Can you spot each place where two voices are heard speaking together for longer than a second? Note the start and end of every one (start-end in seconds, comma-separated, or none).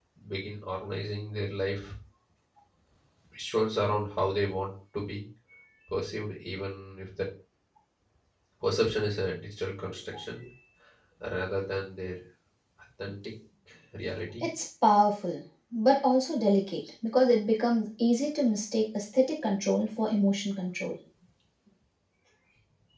none